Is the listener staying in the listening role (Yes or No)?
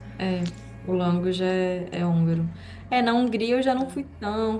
Yes